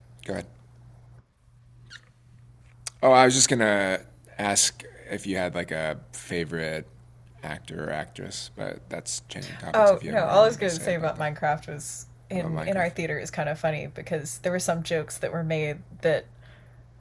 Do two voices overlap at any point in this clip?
Yes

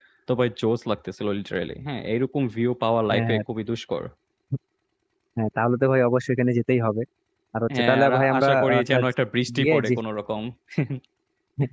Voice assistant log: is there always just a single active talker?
No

